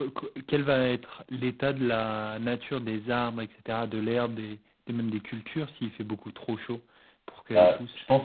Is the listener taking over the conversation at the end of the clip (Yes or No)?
Yes